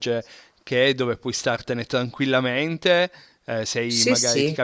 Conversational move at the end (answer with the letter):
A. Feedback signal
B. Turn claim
A